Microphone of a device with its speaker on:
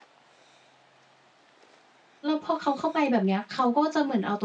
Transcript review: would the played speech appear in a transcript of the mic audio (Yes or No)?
No